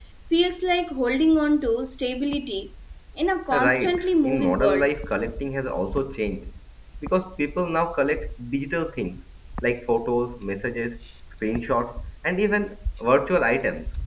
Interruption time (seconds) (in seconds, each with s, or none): 3.5 s